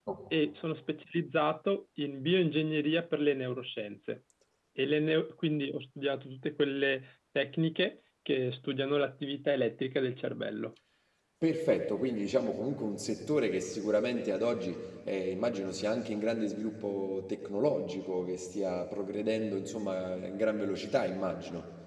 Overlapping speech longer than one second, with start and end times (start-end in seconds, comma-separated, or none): none